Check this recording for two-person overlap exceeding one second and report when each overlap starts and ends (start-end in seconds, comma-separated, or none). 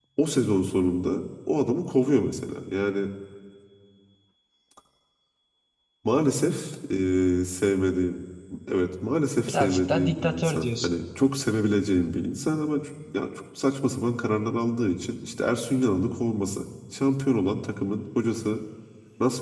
9.5-10.9